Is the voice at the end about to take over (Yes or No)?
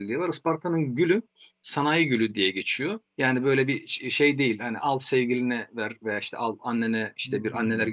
No